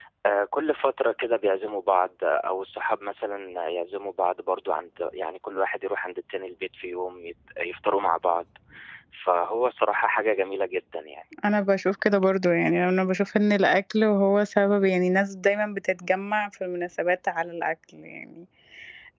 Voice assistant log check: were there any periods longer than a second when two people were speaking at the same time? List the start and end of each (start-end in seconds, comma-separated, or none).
none